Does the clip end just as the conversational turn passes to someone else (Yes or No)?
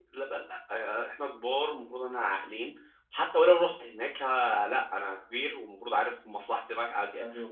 Yes